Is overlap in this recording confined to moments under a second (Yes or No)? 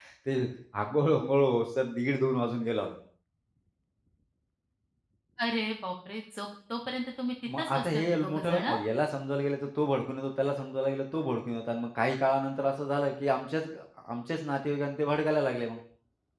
No